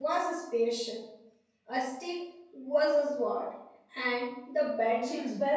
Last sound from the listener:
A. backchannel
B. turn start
B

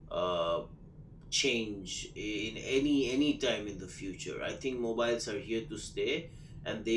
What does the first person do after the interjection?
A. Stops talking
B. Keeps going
B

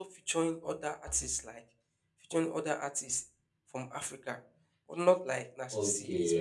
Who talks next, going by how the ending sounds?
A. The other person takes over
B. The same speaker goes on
A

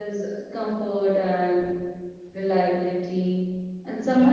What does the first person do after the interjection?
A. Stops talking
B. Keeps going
B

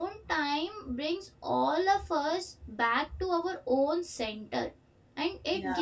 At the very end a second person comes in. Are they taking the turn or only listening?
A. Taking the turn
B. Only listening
B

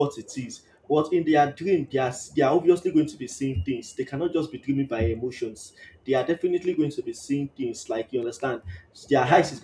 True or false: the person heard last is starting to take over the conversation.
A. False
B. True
A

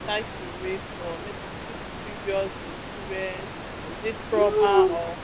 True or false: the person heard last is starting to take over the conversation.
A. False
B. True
B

